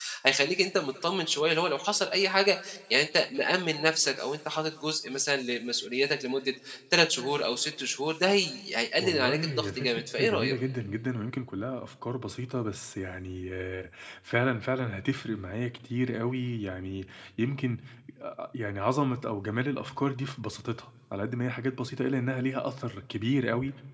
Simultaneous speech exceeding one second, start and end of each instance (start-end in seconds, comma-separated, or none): 9.0-10.6